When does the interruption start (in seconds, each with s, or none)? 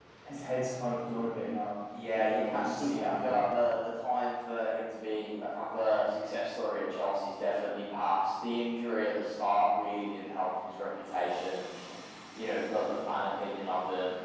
1.9 s